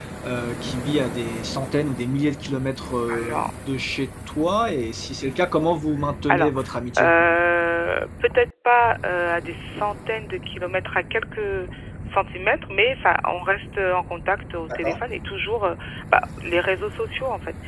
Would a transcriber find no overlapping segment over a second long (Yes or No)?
Yes